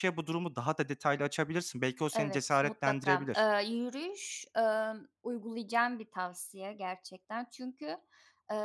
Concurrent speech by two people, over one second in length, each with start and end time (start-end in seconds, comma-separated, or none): 2.1-3.4